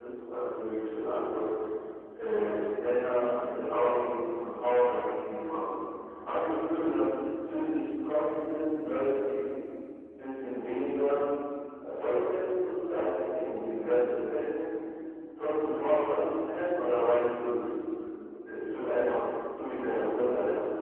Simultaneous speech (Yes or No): No